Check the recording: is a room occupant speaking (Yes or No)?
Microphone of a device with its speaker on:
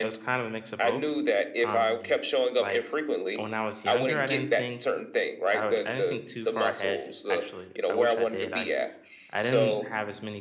Yes